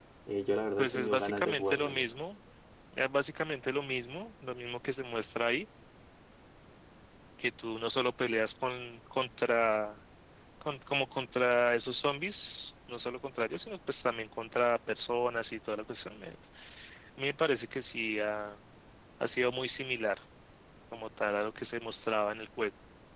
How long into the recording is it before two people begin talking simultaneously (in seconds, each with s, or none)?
0.8 s